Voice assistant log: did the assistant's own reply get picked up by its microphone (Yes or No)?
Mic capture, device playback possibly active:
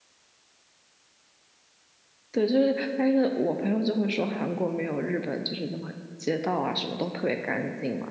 No